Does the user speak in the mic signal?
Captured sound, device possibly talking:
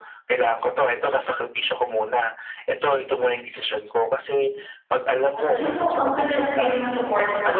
Yes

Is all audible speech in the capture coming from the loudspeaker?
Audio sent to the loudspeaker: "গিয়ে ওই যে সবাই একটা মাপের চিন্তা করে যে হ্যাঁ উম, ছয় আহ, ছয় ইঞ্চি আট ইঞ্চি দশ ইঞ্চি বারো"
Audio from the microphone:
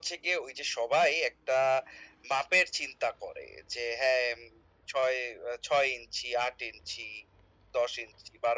Yes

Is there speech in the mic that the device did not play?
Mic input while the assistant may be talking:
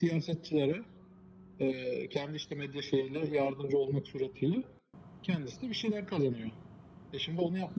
No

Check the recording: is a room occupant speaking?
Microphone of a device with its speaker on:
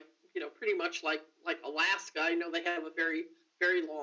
No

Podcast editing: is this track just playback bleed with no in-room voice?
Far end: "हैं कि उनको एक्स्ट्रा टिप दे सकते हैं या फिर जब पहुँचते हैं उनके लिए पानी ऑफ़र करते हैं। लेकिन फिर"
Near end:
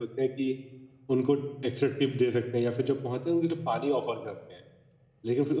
Yes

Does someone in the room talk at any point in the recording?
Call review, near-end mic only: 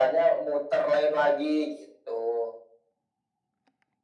No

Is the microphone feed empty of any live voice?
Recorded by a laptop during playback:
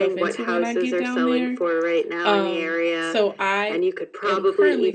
No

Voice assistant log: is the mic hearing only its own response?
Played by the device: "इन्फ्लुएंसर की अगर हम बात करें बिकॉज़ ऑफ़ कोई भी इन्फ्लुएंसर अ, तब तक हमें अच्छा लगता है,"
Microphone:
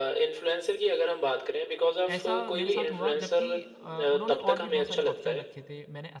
No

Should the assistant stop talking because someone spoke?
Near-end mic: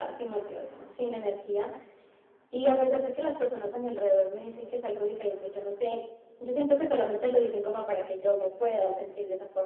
No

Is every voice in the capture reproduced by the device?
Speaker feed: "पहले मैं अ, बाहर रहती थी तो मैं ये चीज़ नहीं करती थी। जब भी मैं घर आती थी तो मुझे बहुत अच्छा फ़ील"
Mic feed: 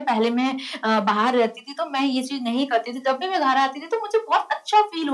Yes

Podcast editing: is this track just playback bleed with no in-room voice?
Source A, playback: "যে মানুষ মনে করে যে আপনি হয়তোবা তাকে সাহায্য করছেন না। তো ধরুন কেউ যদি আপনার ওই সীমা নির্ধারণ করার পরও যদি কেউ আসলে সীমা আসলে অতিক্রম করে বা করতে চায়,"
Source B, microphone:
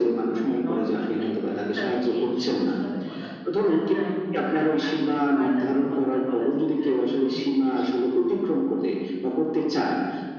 No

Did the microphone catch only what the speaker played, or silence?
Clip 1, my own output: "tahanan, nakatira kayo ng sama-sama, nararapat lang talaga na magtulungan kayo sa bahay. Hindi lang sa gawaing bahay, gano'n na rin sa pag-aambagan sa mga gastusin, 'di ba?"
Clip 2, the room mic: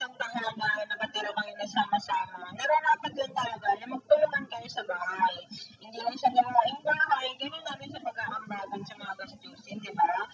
Yes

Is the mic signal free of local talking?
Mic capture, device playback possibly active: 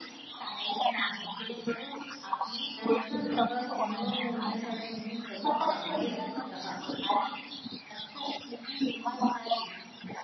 No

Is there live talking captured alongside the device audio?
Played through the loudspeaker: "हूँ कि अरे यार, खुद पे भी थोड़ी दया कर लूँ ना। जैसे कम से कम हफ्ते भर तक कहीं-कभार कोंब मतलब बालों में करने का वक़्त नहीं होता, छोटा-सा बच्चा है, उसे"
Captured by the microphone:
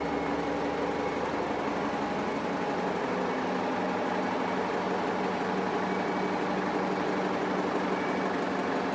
No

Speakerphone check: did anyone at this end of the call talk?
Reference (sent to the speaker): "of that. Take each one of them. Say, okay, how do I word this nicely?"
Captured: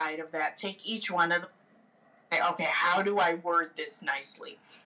No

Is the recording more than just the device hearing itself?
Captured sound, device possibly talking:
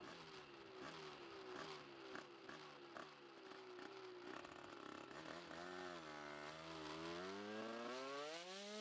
No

